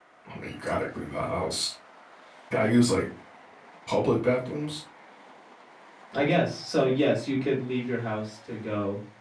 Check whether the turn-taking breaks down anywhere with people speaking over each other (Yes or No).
No